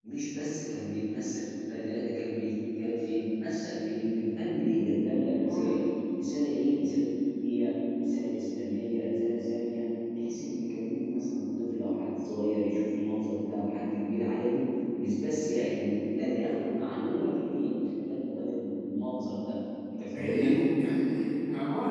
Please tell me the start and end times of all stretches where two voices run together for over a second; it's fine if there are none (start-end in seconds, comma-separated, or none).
none